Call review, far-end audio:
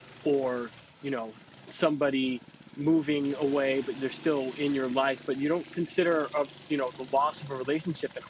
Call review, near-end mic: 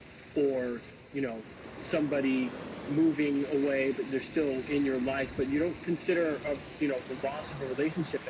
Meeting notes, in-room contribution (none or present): none